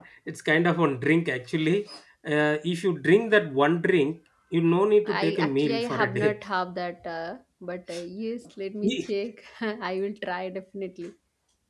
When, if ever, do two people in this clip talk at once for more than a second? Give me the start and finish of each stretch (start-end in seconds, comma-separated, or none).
5.0-6.4